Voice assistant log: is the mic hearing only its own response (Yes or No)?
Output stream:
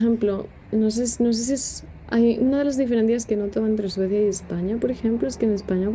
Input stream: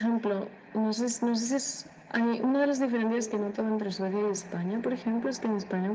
No